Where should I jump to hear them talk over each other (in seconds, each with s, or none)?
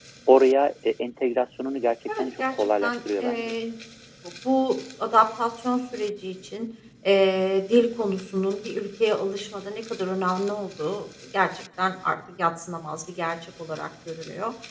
2.1 s